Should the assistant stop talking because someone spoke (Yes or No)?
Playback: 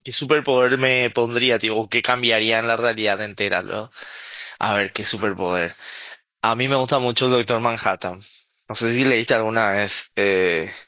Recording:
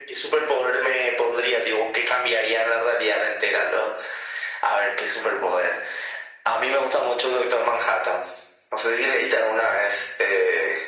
No